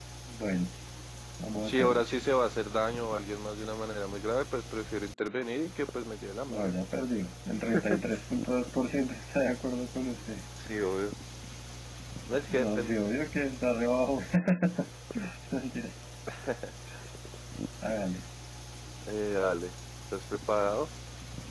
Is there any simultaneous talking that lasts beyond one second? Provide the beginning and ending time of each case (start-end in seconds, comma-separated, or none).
none